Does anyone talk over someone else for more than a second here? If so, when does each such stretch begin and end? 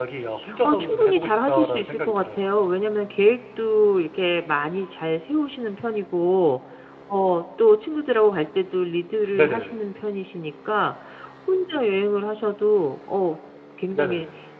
0.6-2.5

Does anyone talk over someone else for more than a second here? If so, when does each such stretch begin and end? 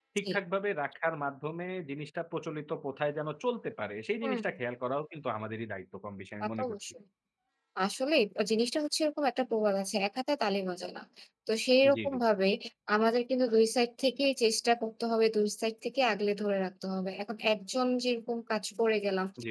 none

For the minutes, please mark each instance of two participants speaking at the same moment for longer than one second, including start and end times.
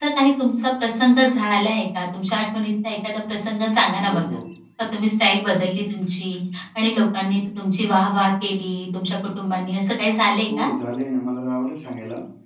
none

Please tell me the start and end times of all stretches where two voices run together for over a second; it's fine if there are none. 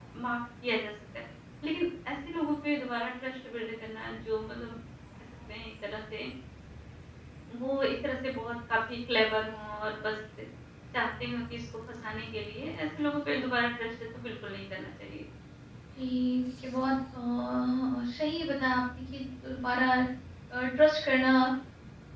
none

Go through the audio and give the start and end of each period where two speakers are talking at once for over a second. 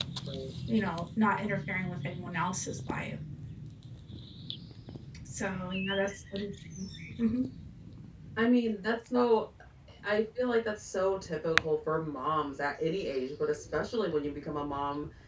none

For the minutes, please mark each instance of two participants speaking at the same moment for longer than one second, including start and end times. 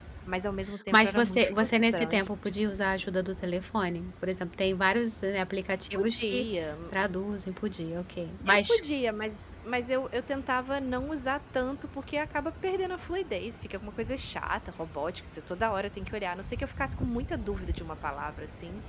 0.9-2.2

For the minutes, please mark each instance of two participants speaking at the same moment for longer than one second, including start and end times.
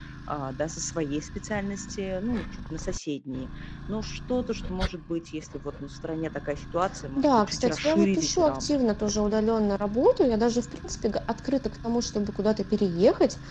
7.2-8.9

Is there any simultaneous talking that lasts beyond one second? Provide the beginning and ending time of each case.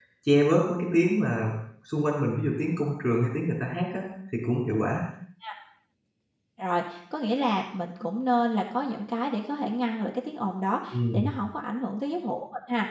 none

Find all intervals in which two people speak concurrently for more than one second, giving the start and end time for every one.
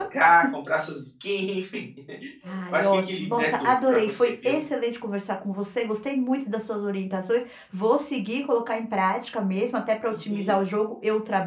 2.7-4.6

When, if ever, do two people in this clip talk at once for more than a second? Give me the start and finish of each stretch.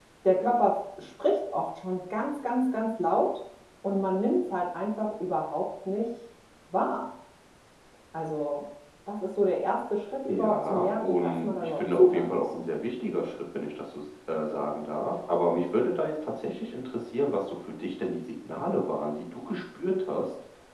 10.3-12.6

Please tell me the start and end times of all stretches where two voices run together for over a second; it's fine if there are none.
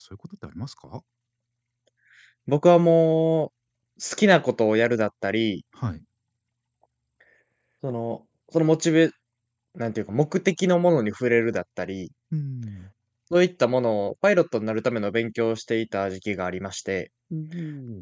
none

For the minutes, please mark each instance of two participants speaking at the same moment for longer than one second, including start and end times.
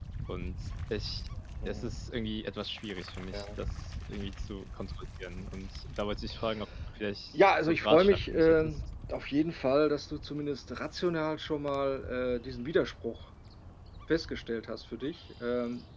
7.3-8.8

